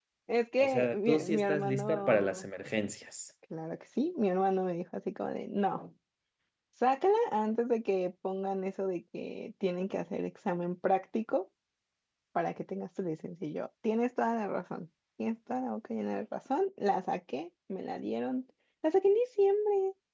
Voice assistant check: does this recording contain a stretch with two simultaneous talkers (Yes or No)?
Yes